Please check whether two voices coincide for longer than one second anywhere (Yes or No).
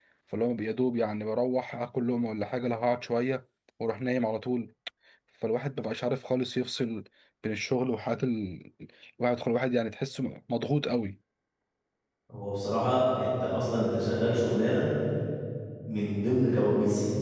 No